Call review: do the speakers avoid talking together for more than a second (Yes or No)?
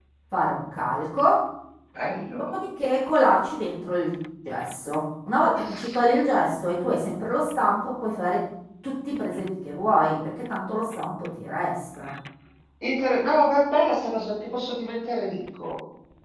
Yes